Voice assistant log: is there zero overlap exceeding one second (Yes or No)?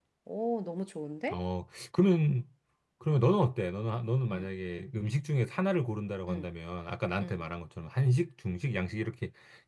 Yes